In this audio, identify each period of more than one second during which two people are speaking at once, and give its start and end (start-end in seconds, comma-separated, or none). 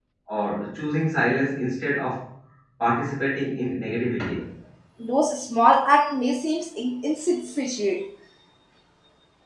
none